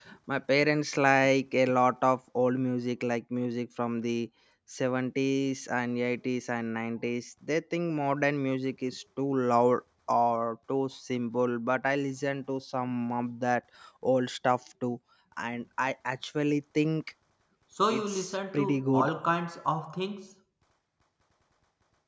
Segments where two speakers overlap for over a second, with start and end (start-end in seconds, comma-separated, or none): 17.9-19.1